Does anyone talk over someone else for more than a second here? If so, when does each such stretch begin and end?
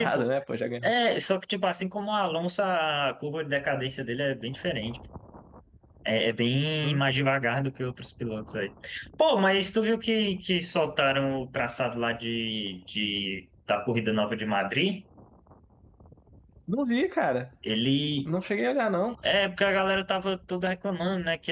none

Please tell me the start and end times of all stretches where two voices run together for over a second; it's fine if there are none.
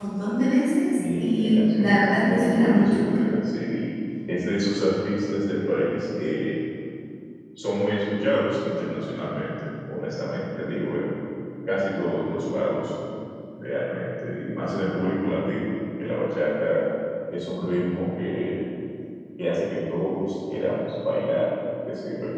1.0-3.0

